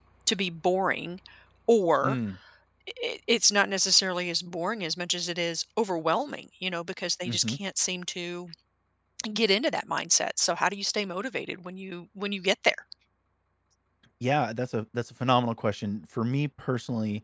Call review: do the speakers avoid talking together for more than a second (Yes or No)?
Yes